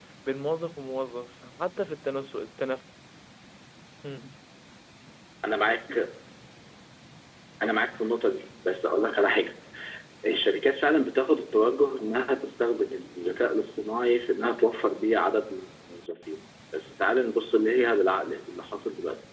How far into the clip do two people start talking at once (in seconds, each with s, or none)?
none